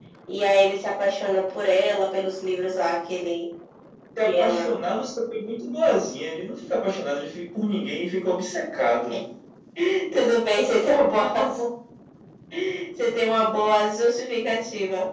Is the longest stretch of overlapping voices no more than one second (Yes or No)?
Yes